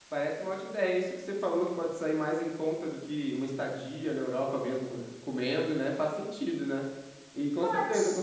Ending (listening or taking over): listening